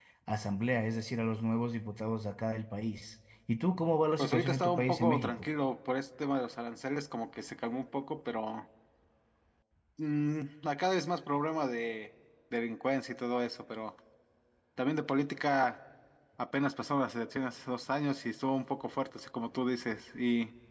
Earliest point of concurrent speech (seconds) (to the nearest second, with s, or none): 4 s